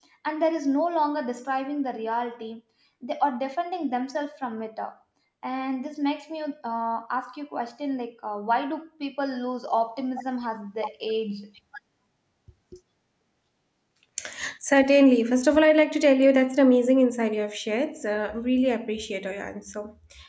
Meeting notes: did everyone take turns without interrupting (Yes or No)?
Yes